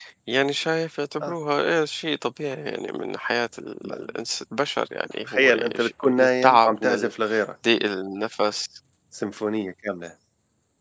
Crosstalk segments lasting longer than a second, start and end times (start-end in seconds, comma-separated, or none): 5.3-7.1